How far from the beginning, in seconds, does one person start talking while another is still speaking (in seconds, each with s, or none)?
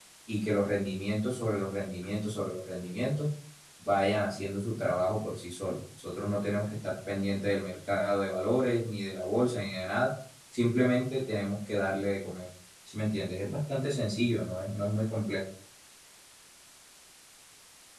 none